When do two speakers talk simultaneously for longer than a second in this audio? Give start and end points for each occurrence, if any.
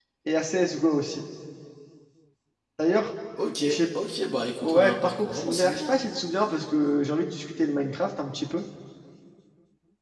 4.6-5.9

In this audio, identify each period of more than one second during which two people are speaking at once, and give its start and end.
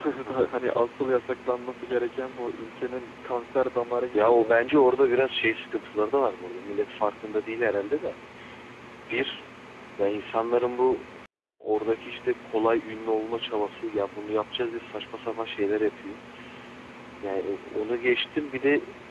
none

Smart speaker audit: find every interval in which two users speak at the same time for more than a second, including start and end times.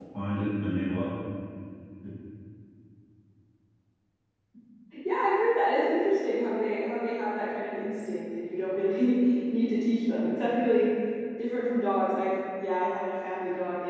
none

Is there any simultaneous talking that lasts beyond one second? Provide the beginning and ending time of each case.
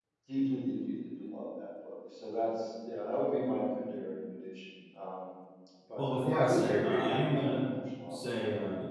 6.0-7.6

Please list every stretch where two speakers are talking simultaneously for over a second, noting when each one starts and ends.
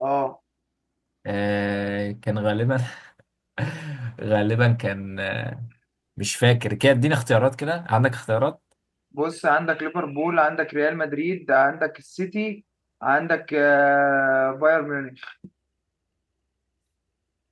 none

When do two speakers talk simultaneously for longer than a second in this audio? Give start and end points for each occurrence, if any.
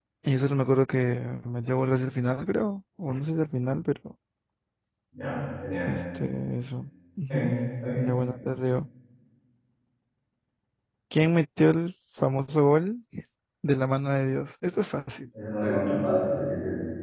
none

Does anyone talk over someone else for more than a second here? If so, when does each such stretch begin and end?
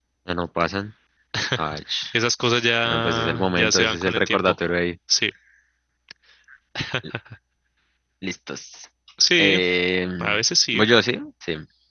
2.9-4.5

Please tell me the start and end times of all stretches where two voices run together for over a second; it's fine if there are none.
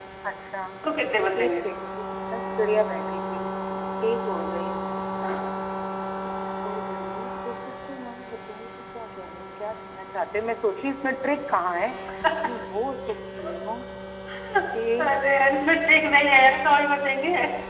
none

